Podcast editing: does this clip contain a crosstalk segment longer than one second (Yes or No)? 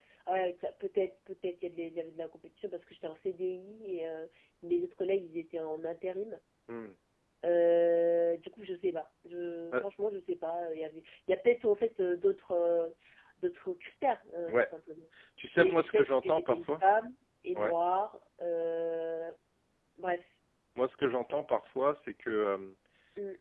Yes